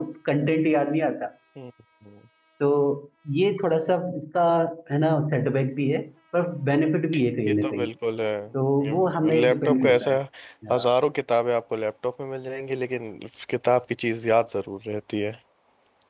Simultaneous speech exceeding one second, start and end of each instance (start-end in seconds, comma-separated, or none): 8.8-10.2